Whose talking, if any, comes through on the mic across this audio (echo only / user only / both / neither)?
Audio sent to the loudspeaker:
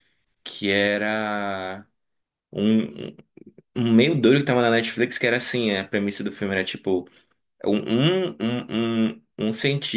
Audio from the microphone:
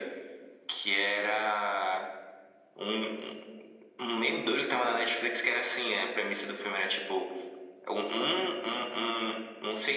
echo only